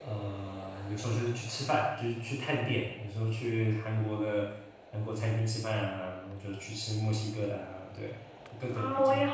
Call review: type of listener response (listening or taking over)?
taking over